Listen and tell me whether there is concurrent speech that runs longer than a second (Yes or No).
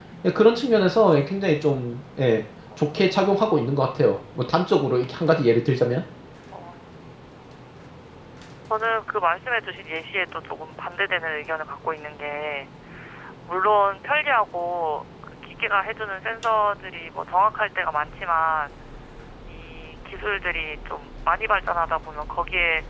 No